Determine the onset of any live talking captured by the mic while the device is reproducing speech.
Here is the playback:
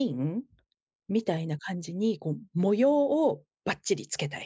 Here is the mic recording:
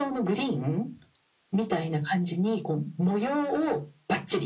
none

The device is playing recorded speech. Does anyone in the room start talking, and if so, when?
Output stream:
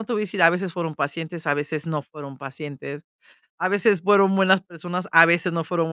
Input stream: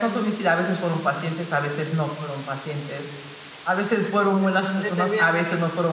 4.1 s

